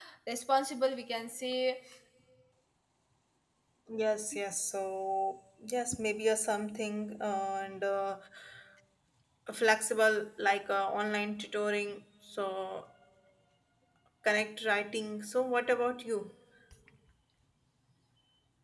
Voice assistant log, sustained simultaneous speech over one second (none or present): none